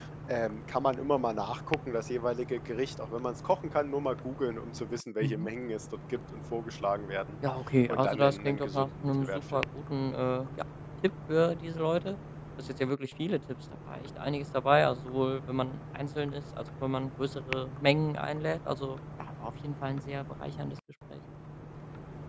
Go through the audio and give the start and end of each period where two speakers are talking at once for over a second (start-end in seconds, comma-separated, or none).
7.9-9.6